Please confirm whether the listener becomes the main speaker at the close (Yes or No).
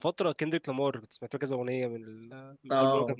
Yes